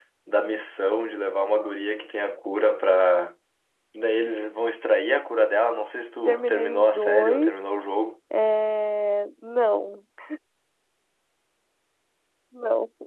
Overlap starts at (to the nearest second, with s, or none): 6 s